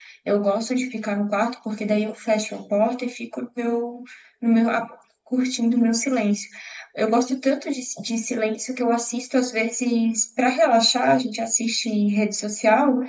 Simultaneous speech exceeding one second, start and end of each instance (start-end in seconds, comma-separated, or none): none